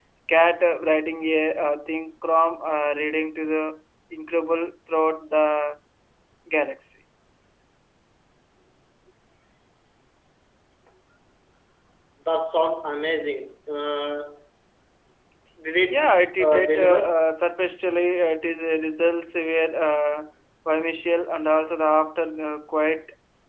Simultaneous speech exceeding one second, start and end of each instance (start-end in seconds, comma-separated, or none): 15.9-17.2